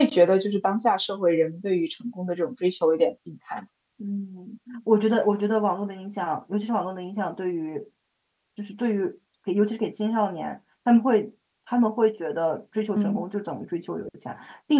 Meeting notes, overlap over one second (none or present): none